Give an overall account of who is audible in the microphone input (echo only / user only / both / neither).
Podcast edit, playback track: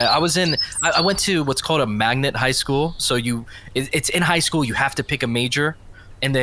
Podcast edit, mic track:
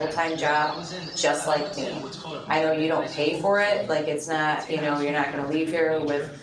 both